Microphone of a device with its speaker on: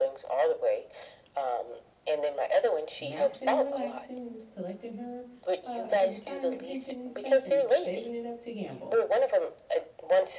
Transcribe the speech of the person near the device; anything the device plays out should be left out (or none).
maxing and relaxing, collecting her uh, her retirement pension and stuff, and saving it up to gamble.